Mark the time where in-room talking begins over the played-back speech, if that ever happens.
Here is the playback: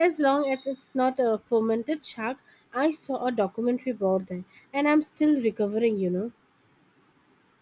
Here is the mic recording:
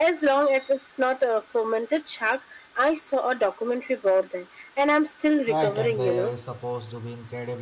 5.5 s

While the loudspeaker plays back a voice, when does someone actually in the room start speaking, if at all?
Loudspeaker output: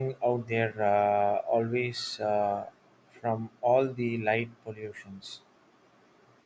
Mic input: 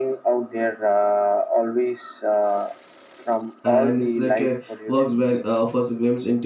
3.6 s

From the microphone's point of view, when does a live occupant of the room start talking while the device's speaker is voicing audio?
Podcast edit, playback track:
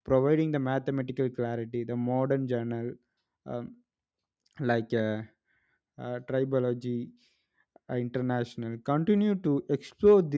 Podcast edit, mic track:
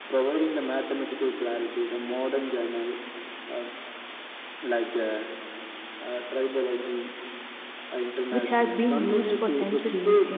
8.3 s

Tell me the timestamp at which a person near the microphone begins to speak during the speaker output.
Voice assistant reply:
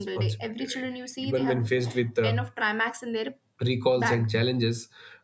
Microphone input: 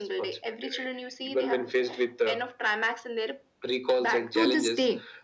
4.3 s

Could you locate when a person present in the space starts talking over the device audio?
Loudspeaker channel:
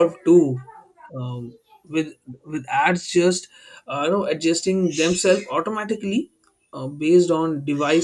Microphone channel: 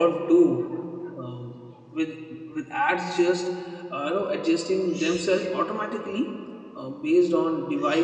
none

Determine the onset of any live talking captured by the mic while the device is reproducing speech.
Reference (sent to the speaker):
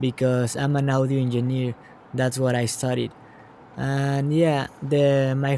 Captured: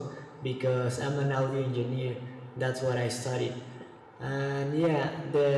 none

